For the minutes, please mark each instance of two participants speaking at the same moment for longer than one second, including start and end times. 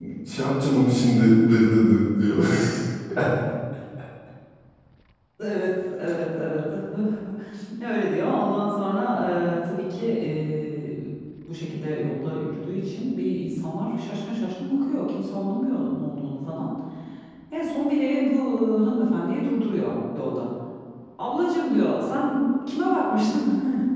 none

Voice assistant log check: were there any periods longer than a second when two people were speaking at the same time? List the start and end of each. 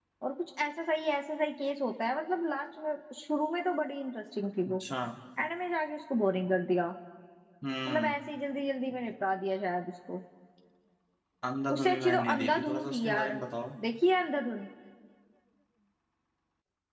11.8-13.4

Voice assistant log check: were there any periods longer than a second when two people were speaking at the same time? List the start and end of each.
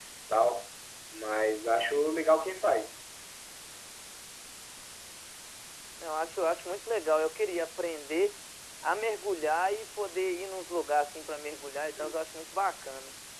none

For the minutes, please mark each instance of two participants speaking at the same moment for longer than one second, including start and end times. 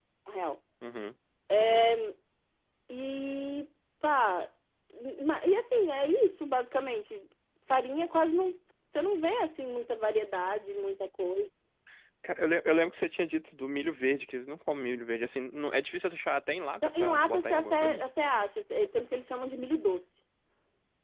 16.8-18.0

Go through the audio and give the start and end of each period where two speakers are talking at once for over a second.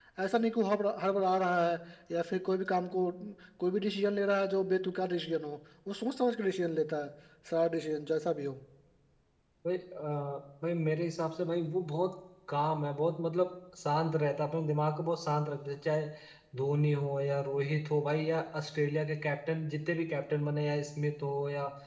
none

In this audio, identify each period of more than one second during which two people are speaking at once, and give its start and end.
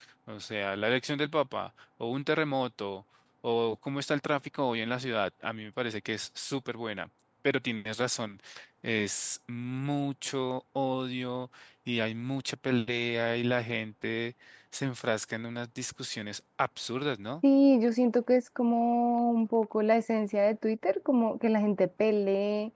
none

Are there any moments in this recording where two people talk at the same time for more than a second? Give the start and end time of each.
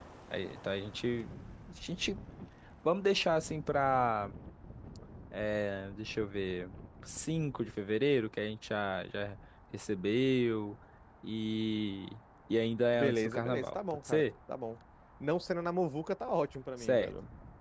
12.9-14.2

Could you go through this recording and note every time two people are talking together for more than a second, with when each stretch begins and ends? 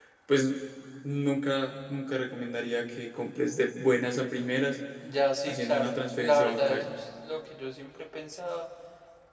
5.4-7.0

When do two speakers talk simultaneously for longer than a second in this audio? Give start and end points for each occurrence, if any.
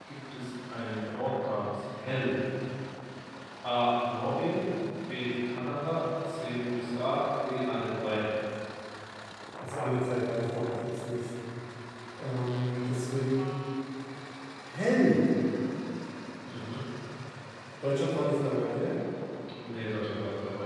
none

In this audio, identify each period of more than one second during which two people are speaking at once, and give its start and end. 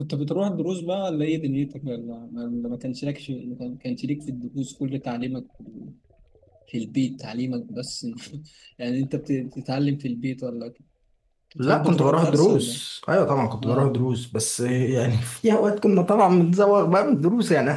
11.6-12.8

